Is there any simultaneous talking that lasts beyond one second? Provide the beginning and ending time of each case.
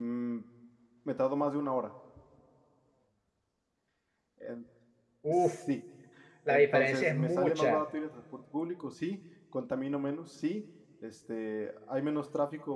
6.5-7.8

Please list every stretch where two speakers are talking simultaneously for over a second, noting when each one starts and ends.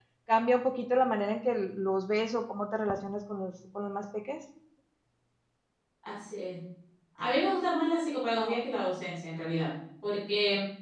none

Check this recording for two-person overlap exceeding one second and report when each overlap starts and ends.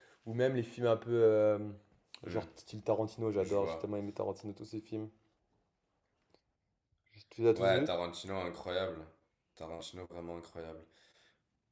none

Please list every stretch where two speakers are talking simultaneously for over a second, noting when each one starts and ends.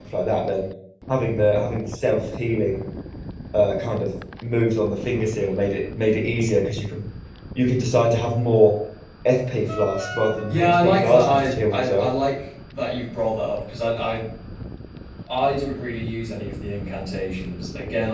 10.5-12.1

